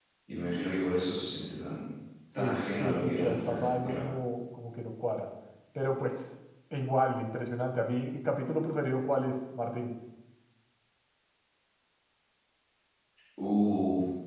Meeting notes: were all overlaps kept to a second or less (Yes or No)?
No